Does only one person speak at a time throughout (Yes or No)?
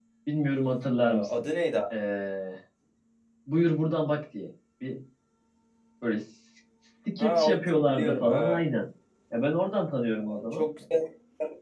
No